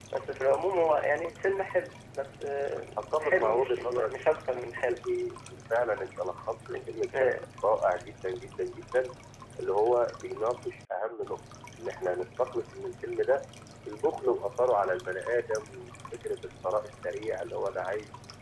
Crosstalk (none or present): present